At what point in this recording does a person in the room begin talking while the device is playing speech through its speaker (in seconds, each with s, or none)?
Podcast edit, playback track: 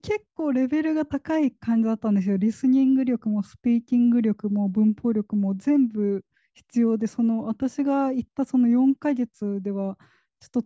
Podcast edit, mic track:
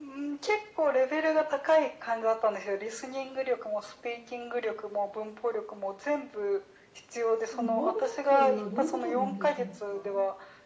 7.5 s